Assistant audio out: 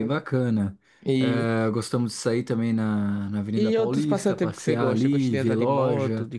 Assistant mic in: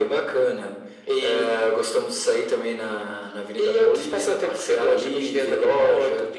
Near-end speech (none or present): none